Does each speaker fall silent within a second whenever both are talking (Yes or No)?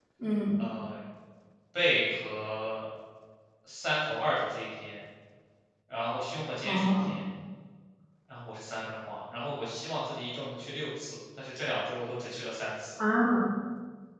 Yes